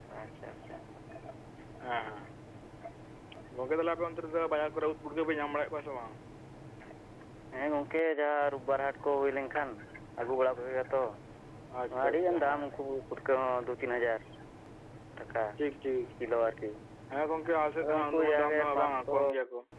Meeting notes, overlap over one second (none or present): present